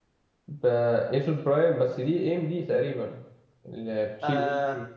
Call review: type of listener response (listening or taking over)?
taking over